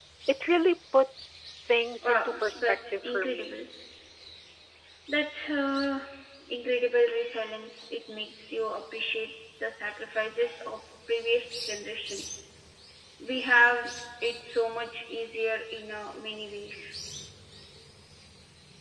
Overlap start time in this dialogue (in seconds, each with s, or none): 2.0 s